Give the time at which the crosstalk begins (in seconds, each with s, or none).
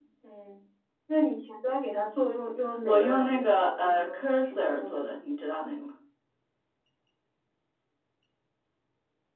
2.8 s